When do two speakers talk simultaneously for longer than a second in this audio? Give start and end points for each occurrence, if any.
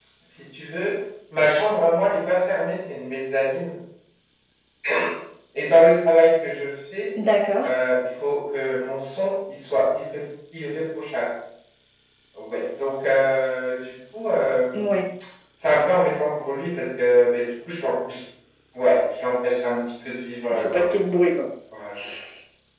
none

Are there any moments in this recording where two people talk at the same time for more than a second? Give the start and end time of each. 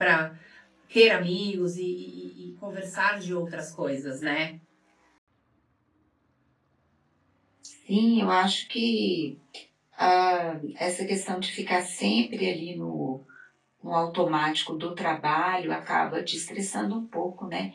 none

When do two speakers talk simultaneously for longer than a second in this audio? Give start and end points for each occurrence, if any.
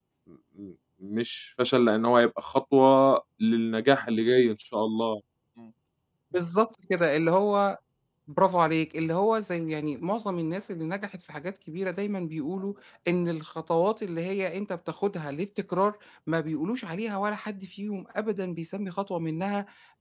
none

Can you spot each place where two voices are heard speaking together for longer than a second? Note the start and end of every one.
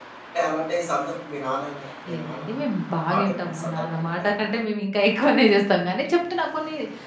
3.1-4.3

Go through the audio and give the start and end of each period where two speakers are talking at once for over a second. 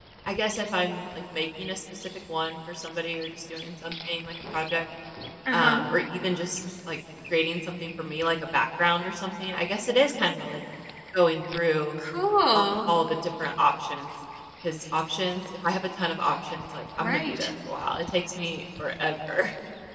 none

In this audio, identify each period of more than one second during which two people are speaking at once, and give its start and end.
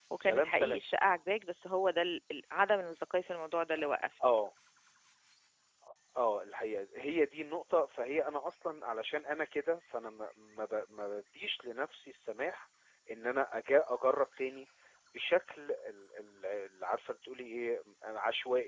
none

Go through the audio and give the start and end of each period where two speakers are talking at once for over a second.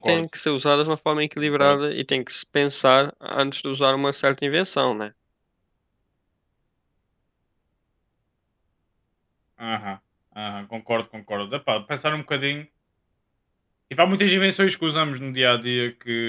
none

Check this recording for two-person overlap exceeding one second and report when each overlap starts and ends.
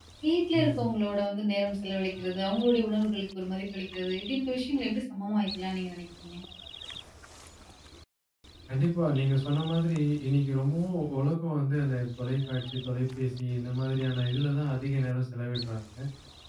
none

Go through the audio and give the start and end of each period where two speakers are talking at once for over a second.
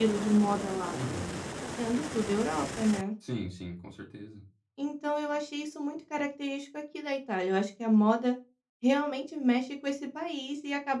none

